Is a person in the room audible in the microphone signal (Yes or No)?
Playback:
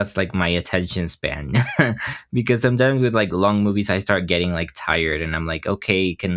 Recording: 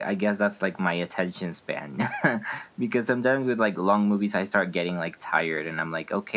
No